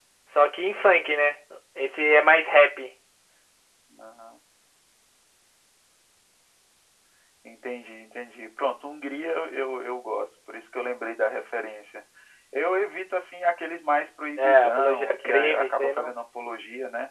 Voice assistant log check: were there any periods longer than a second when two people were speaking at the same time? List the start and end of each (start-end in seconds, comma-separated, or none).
14.4-16.1